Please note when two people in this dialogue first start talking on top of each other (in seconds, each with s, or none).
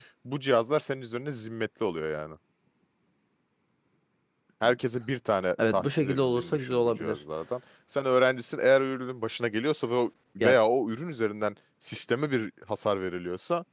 5.7 s